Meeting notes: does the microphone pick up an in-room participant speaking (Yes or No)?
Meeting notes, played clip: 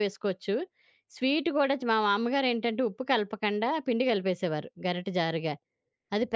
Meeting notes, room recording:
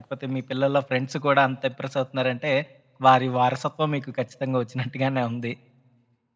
Yes